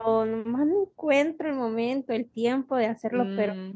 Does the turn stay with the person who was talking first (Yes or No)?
Yes